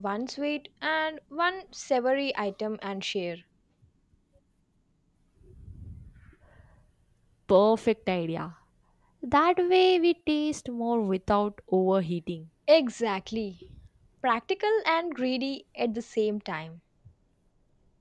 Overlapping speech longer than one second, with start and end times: none

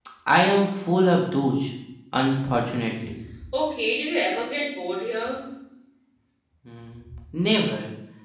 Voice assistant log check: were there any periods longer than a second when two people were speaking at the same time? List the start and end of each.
none

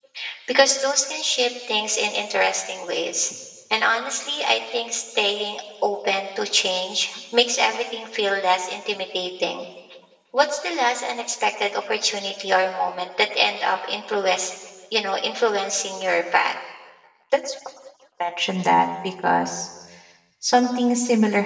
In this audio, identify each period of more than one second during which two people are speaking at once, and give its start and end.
none

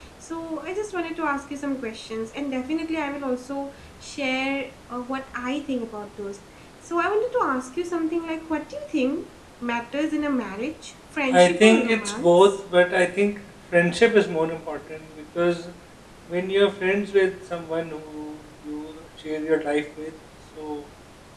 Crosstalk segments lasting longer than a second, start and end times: 11.3-12.6

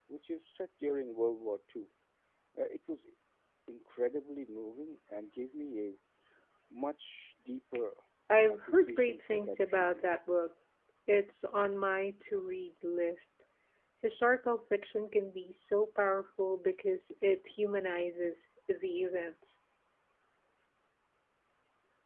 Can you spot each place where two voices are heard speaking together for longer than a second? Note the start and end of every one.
8.5-10.1

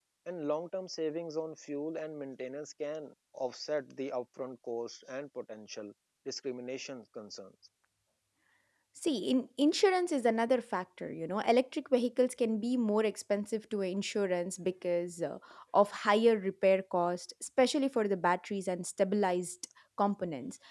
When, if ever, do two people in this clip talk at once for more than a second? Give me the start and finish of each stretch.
none

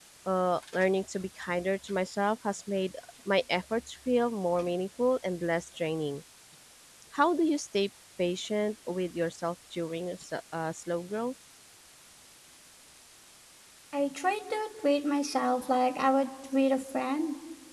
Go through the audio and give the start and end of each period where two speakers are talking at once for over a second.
none

